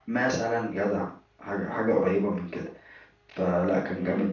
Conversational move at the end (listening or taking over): listening